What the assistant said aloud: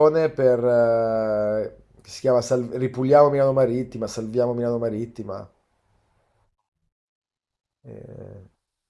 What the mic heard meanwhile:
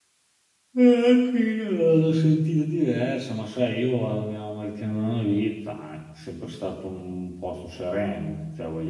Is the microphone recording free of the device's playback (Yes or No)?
Yes